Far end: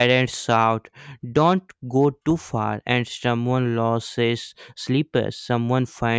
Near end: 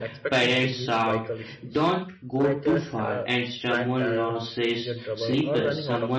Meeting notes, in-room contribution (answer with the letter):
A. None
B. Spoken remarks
B